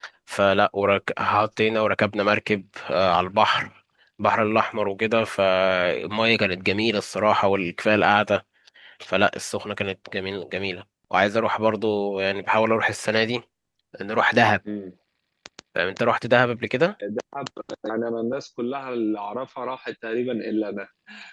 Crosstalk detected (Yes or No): No